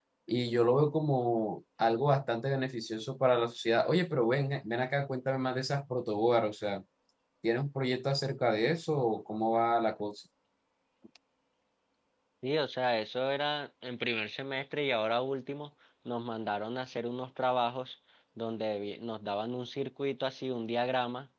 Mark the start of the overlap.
none

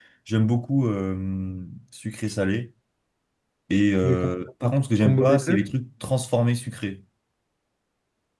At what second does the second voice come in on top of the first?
4.0 s

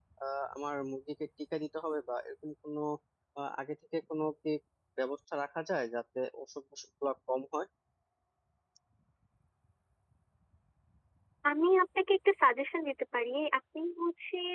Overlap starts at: none

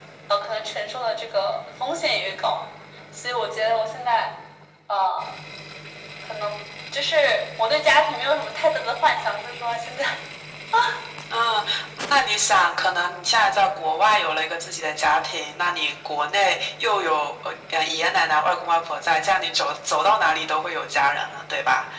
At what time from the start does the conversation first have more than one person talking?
none

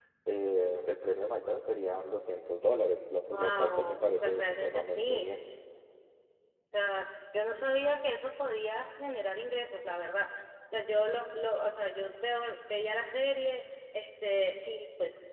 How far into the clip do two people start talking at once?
3.3 s

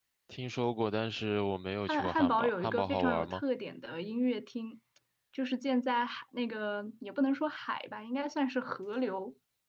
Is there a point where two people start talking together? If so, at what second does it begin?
1.9 s

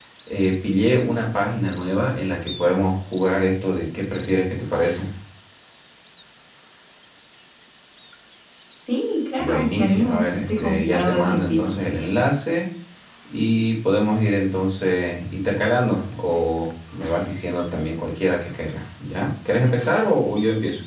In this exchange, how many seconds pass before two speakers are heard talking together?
9.4 s

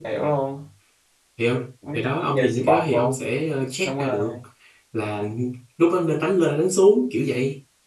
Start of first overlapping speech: 1.9 s

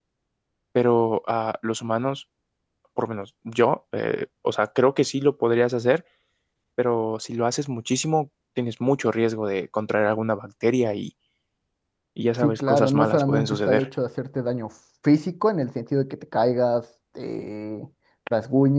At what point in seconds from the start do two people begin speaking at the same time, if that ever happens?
12.4 s

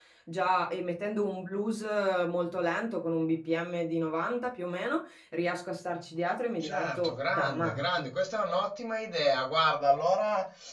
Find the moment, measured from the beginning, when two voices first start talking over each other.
6.6 s

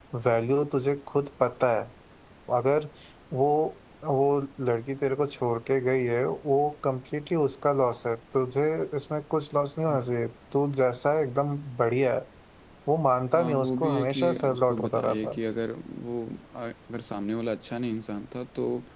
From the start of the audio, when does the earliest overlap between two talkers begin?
13.3 s

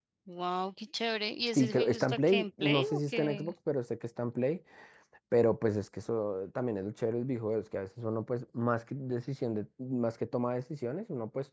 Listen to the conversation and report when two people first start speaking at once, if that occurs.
1.5 s

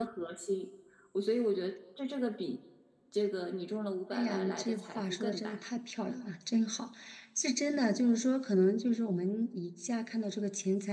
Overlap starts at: 4.1 s

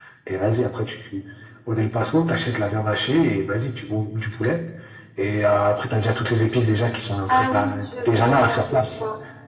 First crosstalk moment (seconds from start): 7.3 s

